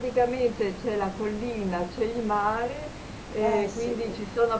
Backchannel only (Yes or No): Yes